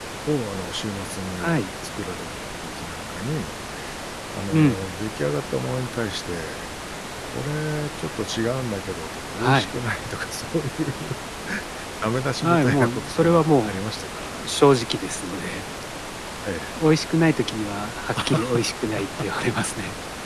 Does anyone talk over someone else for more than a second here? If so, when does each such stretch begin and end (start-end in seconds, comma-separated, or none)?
12.4-13.8